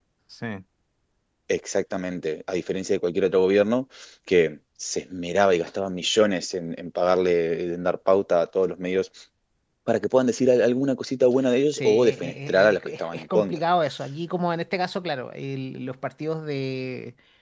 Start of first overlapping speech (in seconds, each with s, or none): 11.7 s